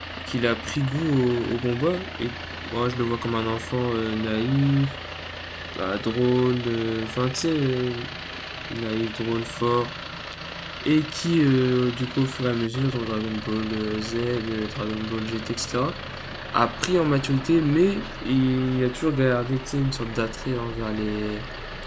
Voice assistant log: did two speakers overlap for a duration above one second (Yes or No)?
No